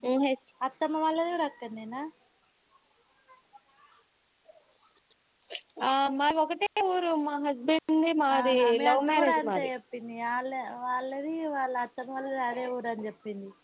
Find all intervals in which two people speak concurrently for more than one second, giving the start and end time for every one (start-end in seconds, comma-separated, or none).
8.3-9.7